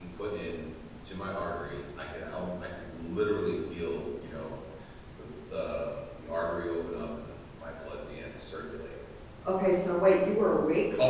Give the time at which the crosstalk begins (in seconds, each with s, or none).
none